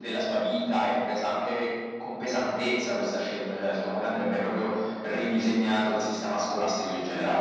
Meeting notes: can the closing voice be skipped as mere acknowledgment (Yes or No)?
No